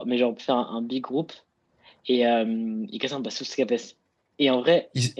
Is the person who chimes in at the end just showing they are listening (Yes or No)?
Yes